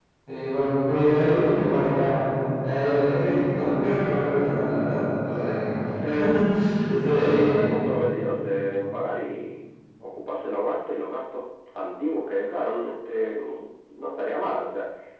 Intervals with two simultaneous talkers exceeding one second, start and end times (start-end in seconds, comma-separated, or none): none